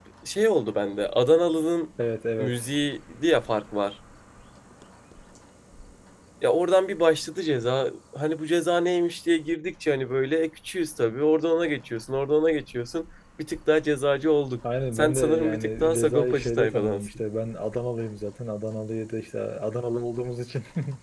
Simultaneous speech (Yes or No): Yes